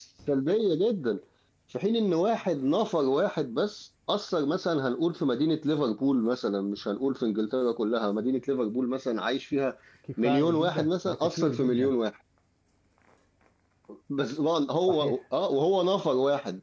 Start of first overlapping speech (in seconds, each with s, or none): 10.2 s